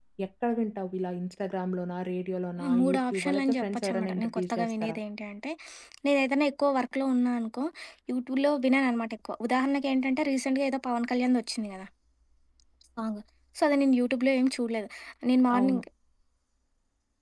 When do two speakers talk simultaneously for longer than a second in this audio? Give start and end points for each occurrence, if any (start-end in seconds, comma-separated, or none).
2.6-5.0